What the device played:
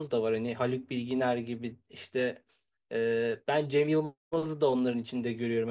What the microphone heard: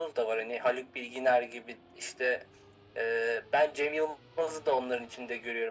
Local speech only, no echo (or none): none